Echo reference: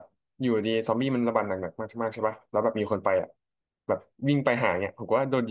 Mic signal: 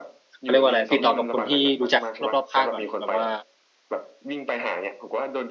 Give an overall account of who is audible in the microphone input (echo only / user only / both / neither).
both